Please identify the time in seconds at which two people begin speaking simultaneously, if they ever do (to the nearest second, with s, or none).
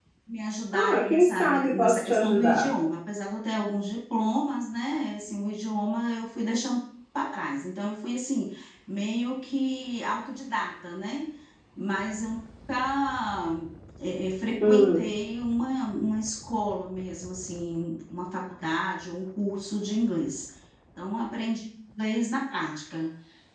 1 s